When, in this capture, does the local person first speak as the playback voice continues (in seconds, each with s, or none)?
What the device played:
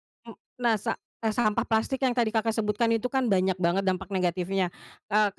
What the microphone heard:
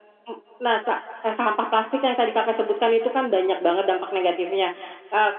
none